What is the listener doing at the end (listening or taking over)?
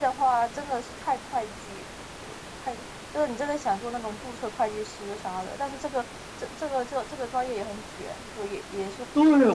taking over